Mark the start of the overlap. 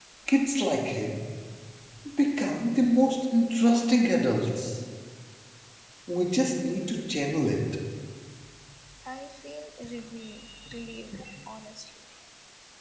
none

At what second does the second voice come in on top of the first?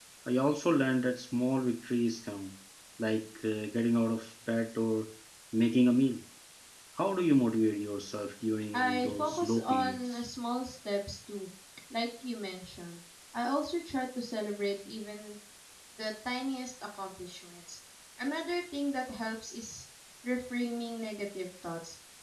8.7 s

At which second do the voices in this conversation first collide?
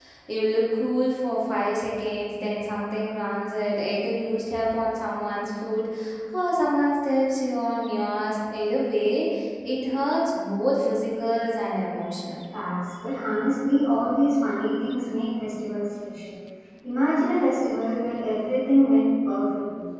none

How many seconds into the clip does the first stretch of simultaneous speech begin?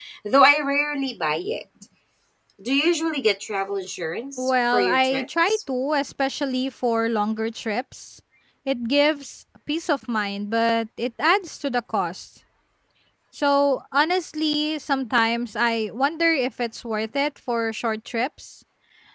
4.4 s

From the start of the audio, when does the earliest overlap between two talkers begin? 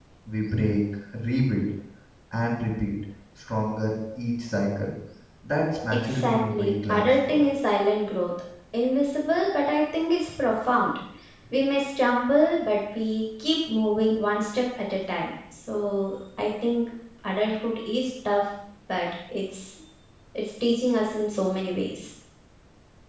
5.9 s

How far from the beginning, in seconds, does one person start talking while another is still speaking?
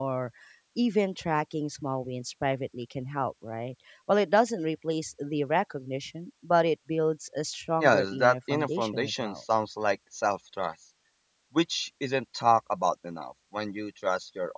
7.8 s

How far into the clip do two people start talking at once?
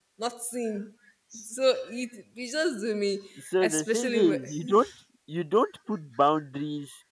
3.6 s

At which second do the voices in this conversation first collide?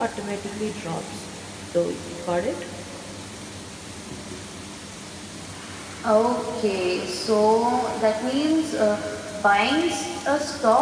none

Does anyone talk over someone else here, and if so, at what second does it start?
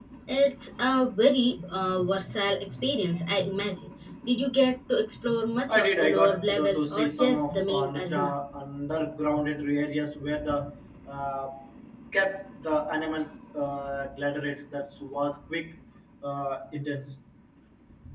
5.7 s

